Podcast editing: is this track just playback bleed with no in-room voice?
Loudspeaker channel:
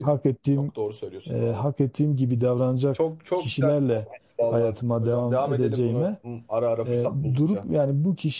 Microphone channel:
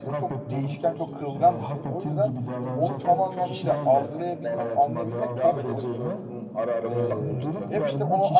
No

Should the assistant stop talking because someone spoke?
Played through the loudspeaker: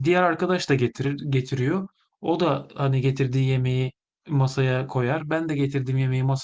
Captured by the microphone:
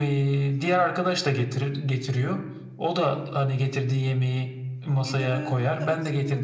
Yes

